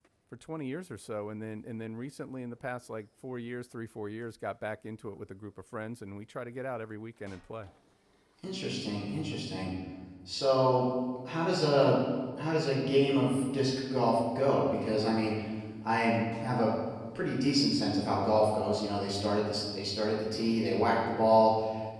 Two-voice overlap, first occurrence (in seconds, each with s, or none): none